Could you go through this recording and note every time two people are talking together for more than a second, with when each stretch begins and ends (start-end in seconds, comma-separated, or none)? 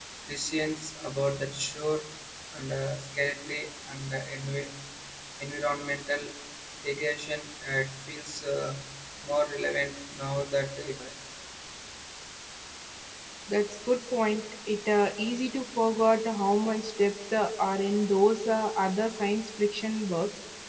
none